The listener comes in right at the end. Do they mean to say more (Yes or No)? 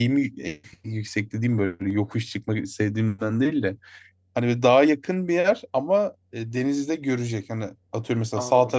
No